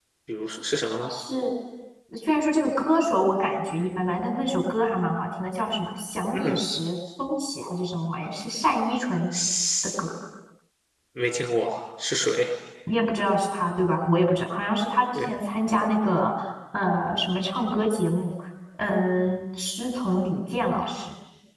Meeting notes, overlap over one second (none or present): none